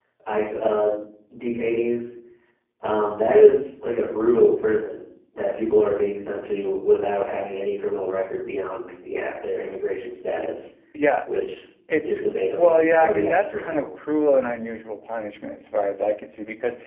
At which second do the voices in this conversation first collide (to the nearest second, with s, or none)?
12 s